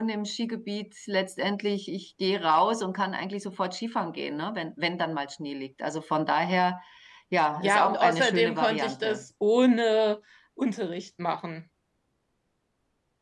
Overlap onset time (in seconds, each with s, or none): 7.6 s